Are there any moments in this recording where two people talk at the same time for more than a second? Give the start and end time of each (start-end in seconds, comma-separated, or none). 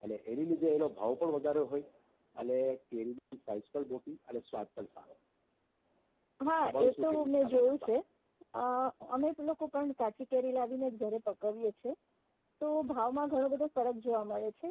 6.7-7.9